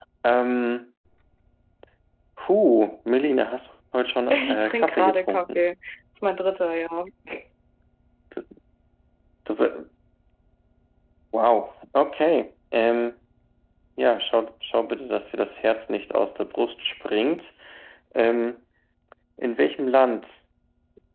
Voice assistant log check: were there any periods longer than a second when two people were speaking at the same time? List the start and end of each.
4.3-5.6

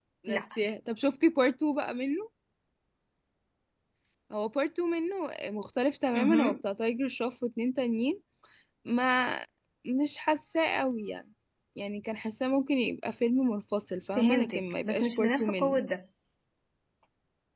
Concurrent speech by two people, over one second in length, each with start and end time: 14.2-15.8

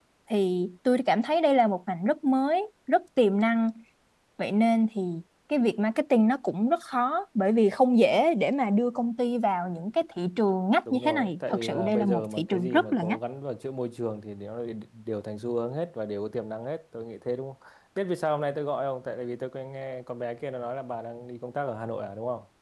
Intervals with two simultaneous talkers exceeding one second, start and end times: 10.9-13.2

